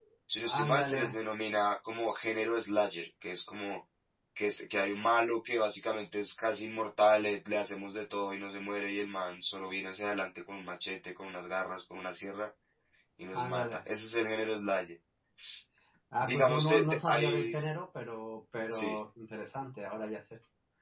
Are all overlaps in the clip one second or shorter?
No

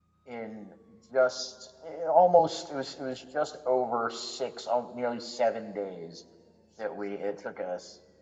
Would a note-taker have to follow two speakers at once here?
No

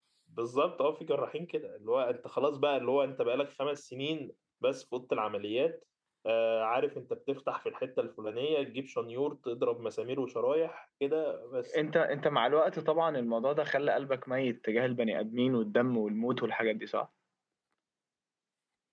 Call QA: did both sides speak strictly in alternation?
Yes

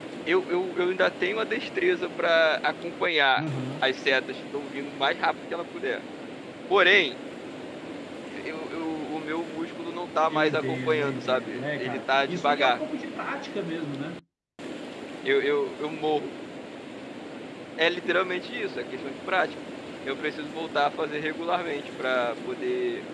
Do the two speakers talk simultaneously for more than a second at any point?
Yes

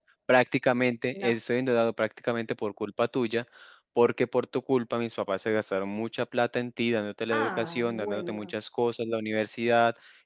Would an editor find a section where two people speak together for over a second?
Yes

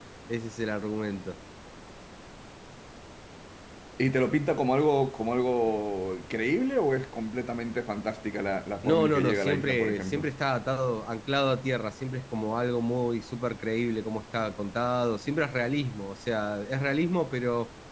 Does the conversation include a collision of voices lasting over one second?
Yes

